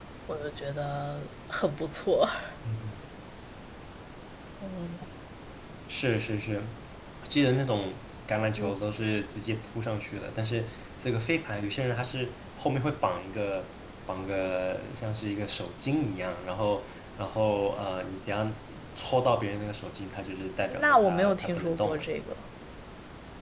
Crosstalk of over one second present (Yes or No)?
Yes